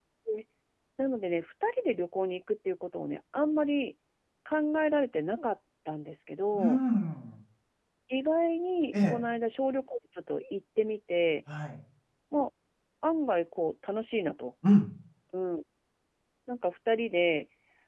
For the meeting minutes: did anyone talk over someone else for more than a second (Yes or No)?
No